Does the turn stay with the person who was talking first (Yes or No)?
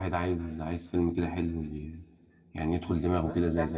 No